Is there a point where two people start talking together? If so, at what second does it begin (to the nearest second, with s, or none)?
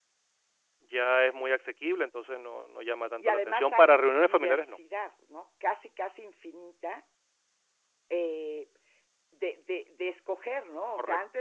3 s